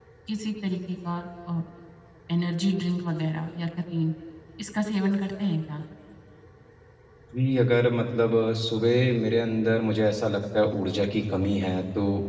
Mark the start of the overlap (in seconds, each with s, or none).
none